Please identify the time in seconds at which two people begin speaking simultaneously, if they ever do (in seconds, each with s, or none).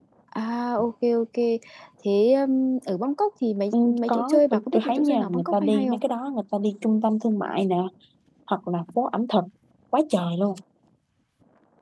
3.7 s